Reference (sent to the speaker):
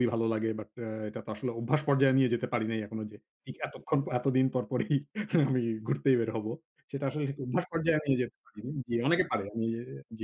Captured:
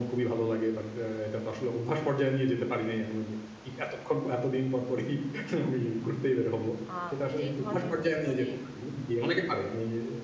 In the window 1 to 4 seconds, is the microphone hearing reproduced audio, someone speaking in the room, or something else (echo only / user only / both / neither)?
echo only